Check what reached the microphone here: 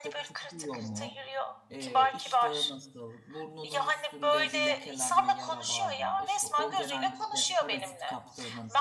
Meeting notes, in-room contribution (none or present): present